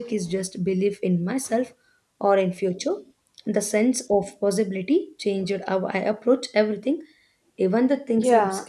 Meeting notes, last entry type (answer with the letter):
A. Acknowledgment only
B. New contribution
B